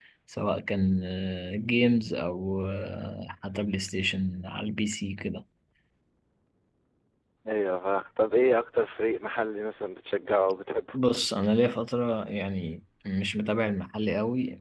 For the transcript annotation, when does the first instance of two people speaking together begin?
none

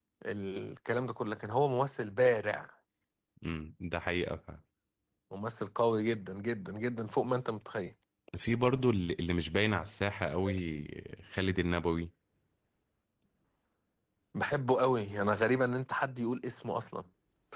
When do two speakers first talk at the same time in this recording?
none

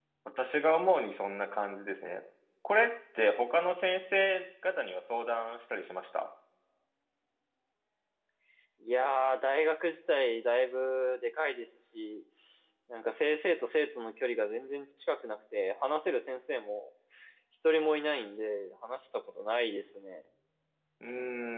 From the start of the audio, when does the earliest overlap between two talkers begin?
none

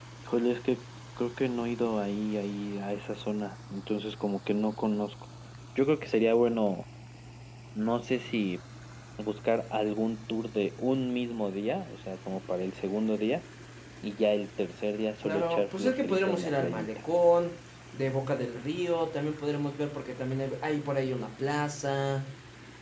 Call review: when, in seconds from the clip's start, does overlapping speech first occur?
15.2 s

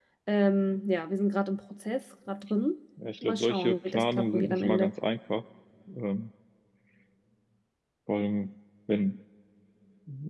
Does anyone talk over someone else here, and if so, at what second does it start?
3.2 s

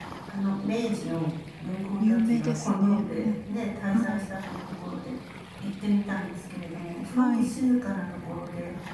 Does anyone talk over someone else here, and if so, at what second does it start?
2.0 s

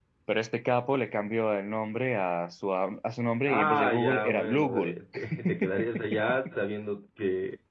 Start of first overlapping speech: 3.5 s

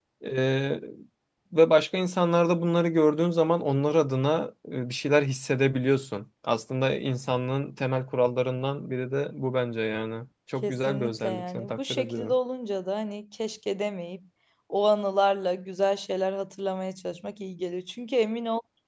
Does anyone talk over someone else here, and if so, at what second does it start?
10.6 s

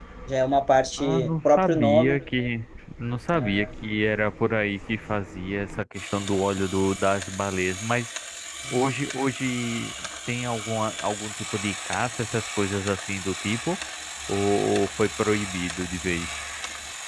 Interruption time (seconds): 1.0 s

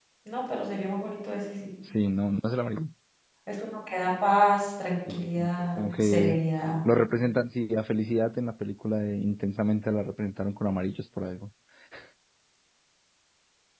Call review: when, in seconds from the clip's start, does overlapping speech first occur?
5.1 s

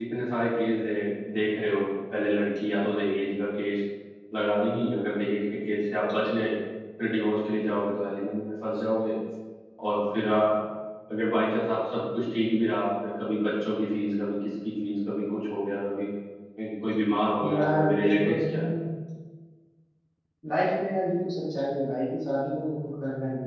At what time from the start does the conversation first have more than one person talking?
17.4 s

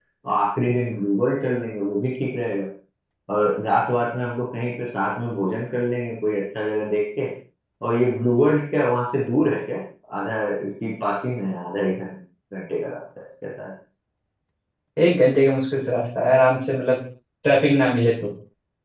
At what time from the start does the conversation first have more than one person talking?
none

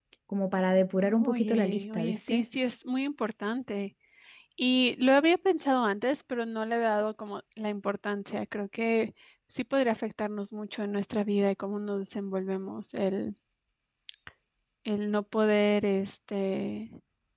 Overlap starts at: 1.2 s

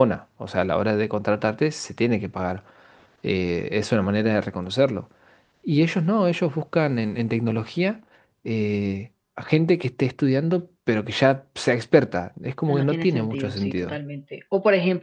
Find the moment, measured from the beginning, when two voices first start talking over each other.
12.7 s

